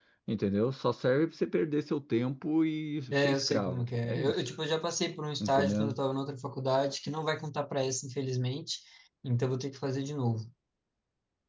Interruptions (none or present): present